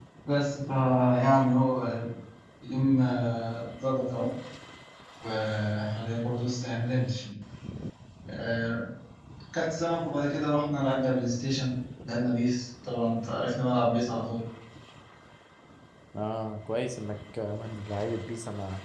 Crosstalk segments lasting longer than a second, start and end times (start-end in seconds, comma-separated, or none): none